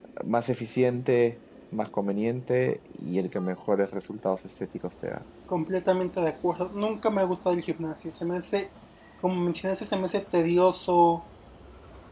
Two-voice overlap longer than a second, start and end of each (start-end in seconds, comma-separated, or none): none